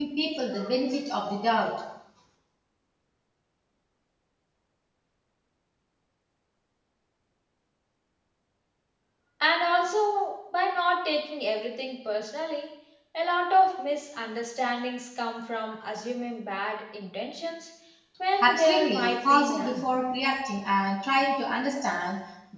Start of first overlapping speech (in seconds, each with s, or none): 18.4 s